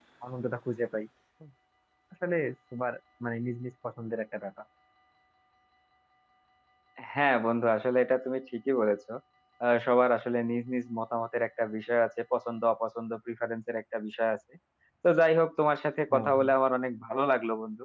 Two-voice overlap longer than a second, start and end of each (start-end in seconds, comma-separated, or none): none